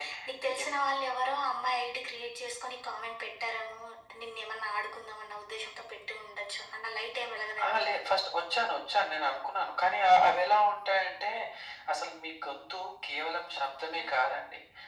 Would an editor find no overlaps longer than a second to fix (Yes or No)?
Yes